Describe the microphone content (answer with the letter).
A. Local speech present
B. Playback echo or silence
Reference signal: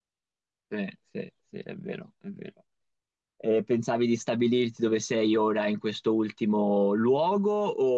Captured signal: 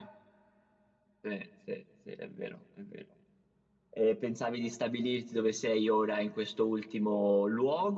B